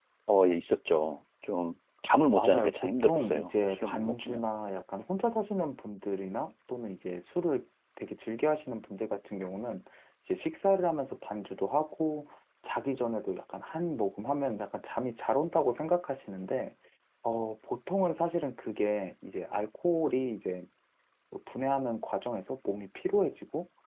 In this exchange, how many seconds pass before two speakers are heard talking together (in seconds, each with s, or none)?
2.4 s